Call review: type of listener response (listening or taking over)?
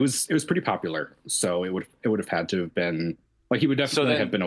listening